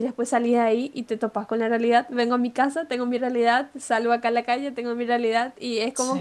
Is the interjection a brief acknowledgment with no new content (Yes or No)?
Yes